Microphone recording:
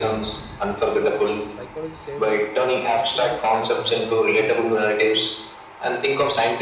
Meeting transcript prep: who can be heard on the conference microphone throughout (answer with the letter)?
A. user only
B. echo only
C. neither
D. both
D